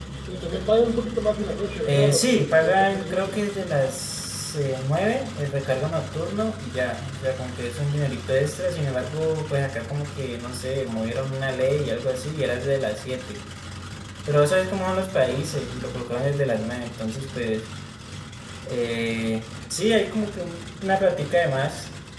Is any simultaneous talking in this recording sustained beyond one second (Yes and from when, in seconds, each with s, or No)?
Yes, from 1.8 s